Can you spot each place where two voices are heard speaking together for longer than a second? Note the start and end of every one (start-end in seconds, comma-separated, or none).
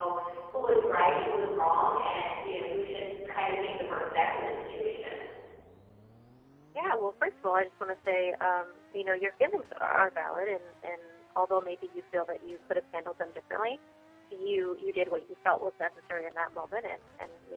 none